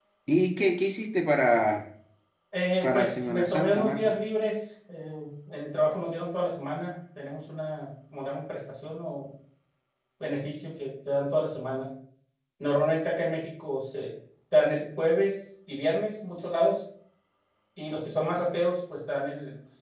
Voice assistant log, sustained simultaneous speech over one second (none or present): present